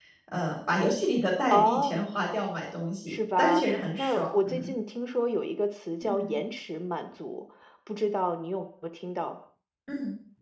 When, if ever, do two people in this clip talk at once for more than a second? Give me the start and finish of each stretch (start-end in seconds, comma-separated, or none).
3.1-4.7